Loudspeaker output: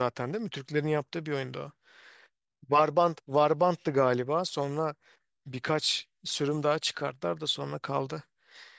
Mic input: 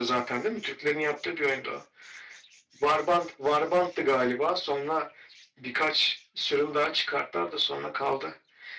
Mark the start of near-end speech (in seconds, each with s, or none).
none